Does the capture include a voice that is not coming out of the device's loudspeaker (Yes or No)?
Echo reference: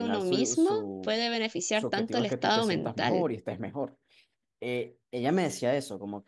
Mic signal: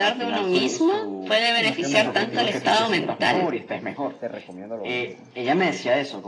Yes